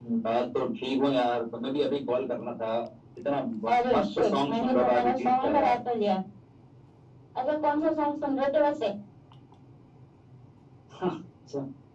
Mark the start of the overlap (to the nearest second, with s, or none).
4 s